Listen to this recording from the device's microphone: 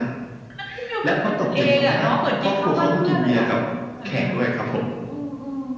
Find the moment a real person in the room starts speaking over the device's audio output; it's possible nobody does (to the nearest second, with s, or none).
none